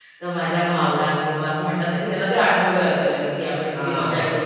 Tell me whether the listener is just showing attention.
No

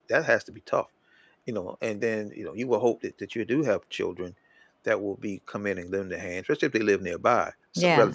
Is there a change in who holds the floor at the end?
Yes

